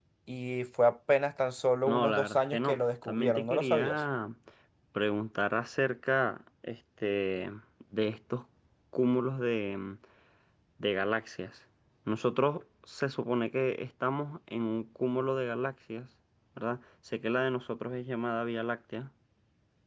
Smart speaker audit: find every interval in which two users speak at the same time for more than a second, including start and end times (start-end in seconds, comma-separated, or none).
1.9-4.0